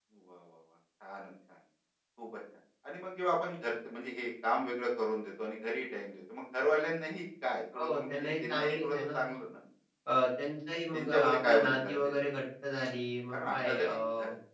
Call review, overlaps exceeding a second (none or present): present